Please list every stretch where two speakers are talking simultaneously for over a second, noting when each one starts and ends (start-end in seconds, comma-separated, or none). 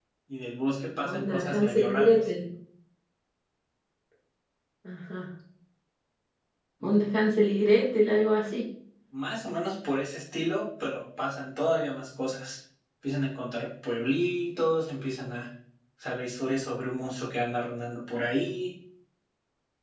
1.0-2.3